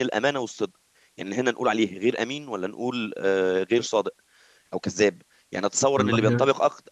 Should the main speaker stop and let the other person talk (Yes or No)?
No